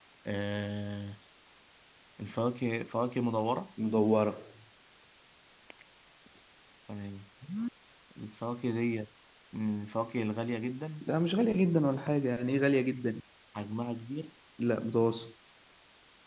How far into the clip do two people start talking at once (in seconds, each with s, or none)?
none